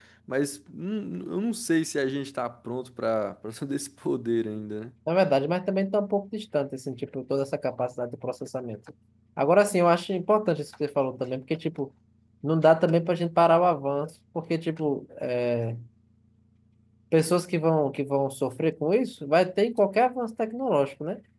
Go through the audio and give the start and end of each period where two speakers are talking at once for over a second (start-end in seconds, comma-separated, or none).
none